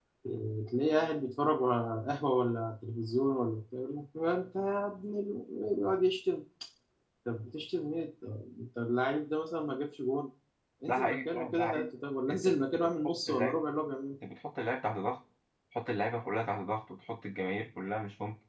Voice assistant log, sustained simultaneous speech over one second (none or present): present